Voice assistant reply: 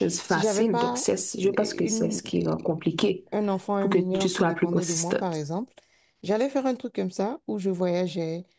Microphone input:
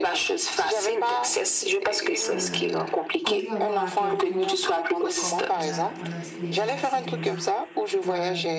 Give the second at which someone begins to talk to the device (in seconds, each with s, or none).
2.3 s